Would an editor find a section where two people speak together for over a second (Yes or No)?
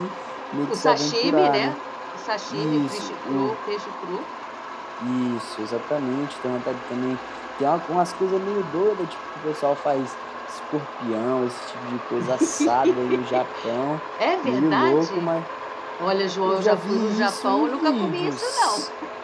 Yes